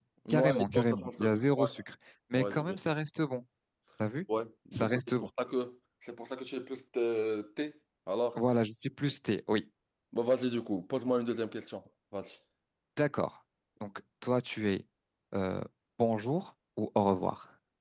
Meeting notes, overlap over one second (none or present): present